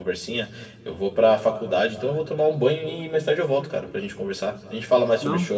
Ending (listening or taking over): listening